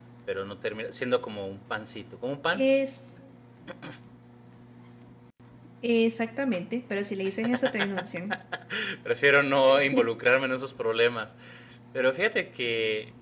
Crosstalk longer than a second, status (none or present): none